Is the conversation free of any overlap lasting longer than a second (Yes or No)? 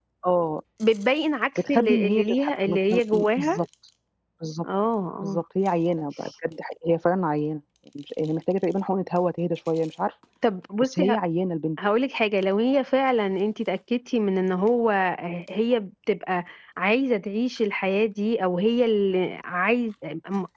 No